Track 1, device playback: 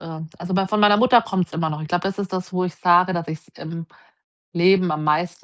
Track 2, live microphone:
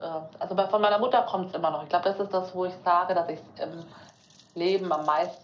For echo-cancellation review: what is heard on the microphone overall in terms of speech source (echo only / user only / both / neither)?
echo only